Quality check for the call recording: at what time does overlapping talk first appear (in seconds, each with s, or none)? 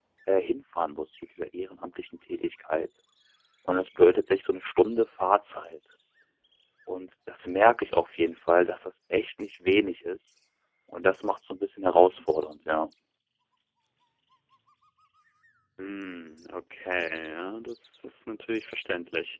none